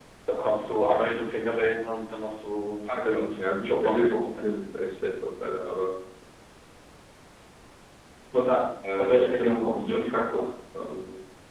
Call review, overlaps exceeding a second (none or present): present